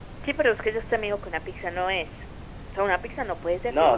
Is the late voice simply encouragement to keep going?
No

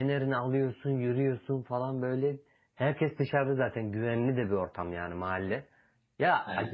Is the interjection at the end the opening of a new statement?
No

